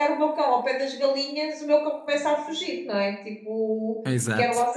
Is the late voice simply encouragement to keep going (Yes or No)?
Yes